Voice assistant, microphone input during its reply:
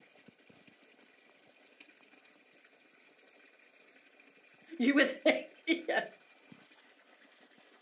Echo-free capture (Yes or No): Yes